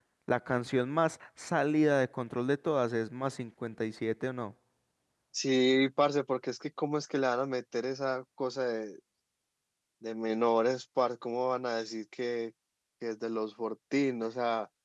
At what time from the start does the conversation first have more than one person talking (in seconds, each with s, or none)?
none